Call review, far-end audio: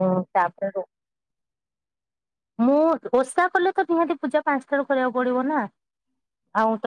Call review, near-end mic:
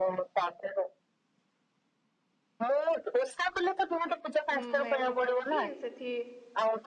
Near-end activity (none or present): present